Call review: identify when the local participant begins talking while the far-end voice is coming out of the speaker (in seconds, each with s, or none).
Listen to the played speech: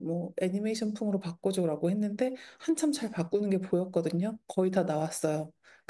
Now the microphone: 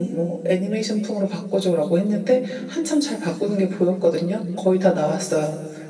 none